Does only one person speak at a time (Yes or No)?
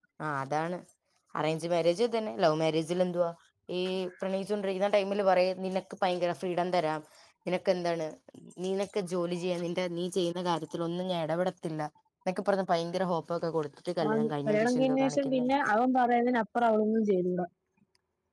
No